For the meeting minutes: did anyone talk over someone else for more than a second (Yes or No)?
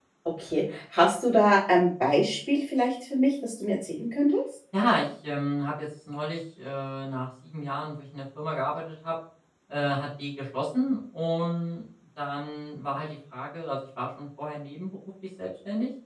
No